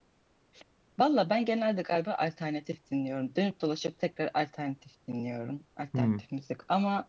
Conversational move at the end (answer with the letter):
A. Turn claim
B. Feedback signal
B